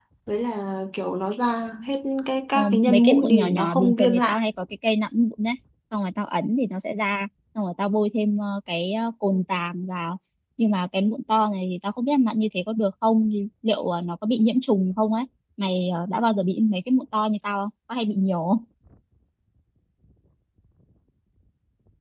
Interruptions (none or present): present